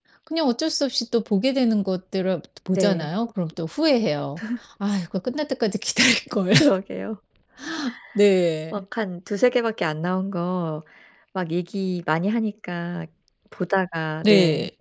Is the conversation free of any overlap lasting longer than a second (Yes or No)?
Yes